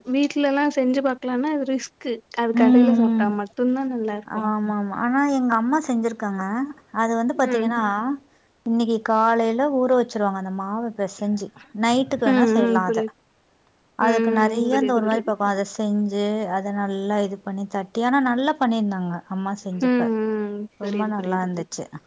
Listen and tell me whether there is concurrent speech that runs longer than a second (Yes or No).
Yes